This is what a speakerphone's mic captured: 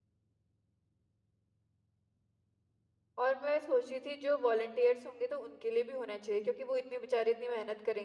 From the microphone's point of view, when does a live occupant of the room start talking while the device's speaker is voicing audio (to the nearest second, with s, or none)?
3 s